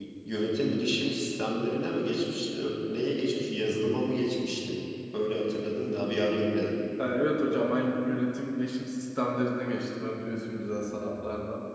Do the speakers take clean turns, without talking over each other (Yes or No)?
Yes